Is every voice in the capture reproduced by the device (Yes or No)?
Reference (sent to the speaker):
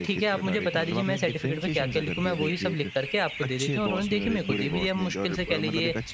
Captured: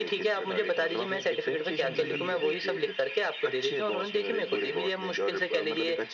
No